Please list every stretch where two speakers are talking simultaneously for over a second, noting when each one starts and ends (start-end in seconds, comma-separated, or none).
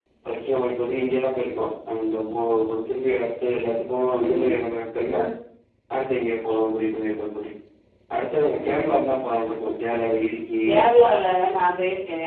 none